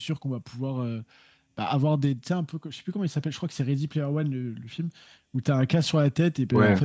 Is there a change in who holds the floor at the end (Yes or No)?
No